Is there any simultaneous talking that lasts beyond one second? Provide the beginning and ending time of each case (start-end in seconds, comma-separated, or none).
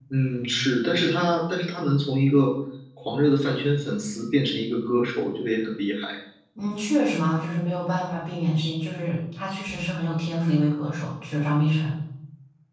none